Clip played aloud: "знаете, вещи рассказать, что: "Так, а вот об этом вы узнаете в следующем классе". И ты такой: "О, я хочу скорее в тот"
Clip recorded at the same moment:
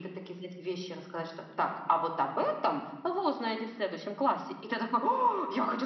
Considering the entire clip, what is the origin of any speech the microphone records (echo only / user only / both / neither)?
echo only